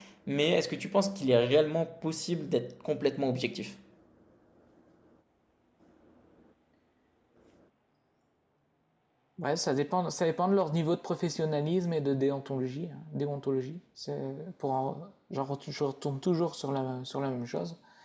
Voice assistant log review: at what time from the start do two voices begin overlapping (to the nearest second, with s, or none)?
none